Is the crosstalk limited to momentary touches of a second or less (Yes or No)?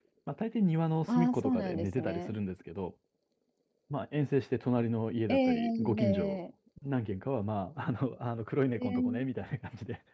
No